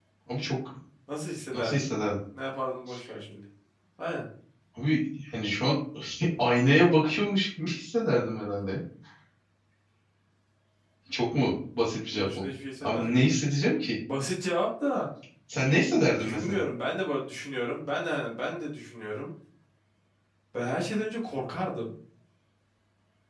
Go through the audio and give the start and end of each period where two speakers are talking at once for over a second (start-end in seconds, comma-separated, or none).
12.1-13.3